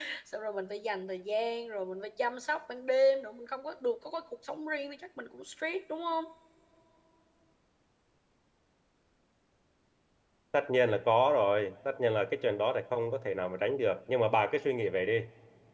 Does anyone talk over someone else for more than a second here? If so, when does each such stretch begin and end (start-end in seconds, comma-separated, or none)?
none